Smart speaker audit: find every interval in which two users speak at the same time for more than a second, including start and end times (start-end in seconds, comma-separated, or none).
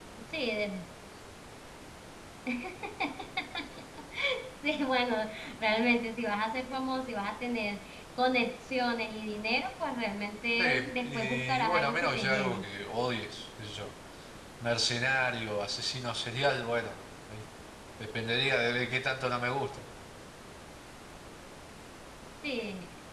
10.6-12.6